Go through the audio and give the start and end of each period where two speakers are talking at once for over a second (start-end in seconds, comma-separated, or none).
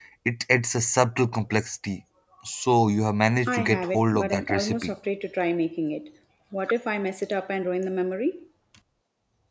3.5-5.0